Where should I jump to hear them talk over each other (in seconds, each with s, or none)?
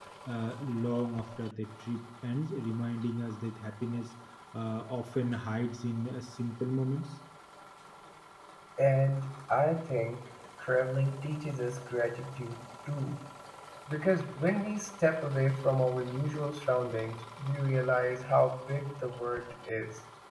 none